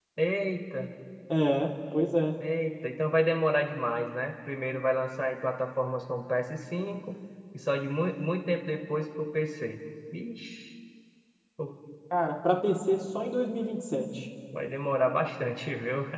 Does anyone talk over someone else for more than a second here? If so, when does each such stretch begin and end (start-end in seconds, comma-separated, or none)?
none